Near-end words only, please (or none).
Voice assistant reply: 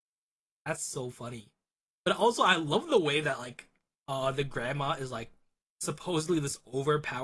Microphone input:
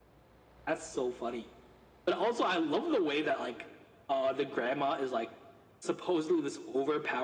none